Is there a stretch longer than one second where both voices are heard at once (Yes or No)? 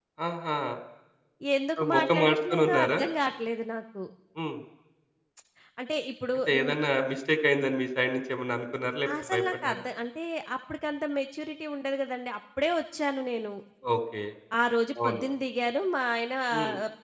Yes